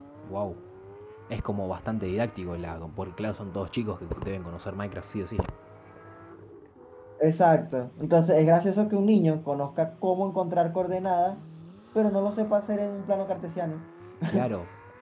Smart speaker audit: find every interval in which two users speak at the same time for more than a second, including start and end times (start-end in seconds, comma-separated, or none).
none